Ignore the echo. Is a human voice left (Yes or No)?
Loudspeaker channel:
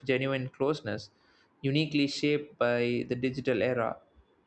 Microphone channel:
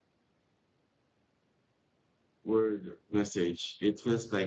Yes